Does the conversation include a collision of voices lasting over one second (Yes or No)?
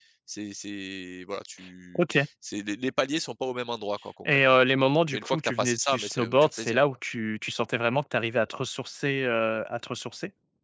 Yes